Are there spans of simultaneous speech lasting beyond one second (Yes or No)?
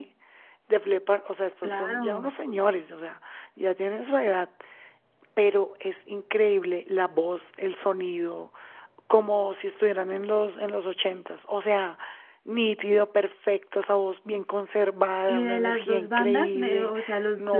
Yes